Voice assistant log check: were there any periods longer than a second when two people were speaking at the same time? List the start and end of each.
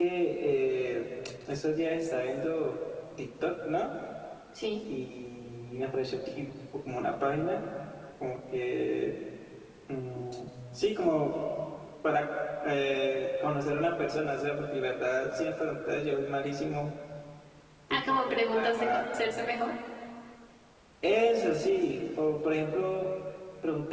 17.9-19.2

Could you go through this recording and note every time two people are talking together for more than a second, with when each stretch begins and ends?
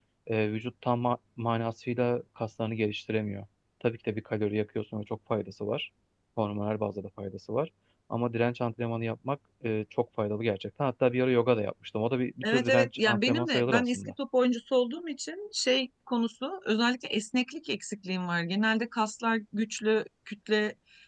12.4-14.0

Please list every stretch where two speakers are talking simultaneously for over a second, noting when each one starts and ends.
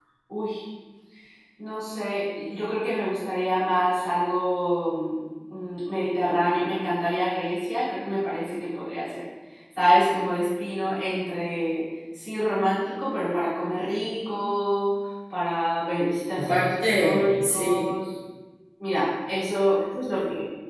16.4-17.9

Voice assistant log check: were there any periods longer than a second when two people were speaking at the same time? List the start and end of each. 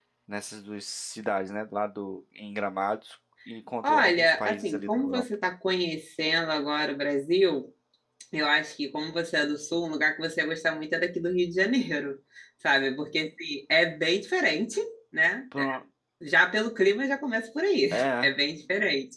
3.8-5.2

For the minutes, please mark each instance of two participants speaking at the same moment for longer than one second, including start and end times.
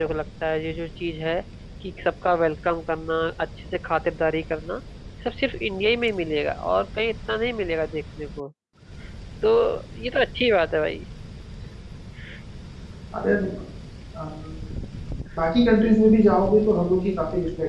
none

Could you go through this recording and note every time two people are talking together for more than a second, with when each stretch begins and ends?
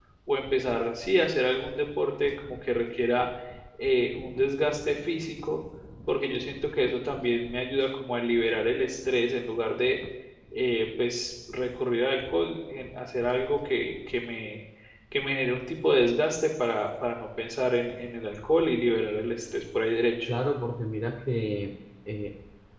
none

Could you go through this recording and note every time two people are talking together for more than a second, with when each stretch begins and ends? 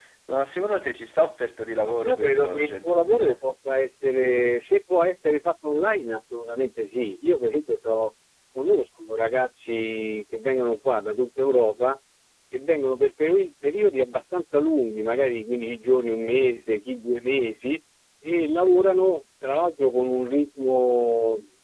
1.9-3.4

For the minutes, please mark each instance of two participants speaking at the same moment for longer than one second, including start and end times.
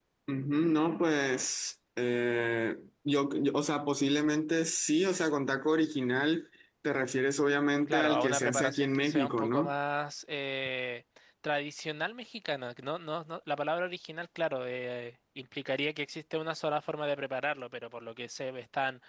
7.9-9.7

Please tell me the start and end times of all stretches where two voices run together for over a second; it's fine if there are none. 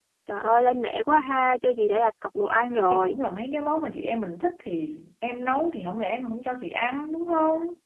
none

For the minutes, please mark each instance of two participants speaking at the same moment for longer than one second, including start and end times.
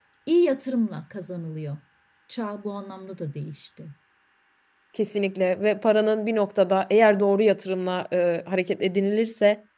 none

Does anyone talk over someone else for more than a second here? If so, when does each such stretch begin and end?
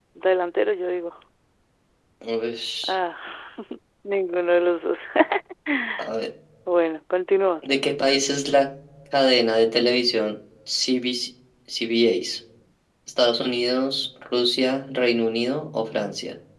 none

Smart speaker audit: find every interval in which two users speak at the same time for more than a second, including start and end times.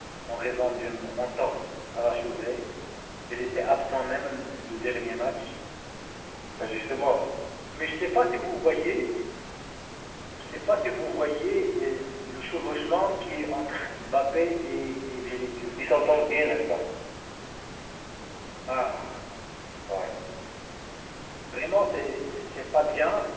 none

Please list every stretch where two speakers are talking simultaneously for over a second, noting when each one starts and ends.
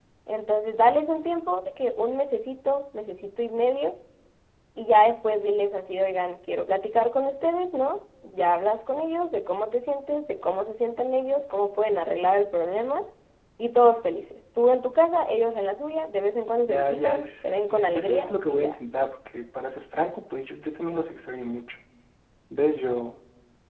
16.6-18.8

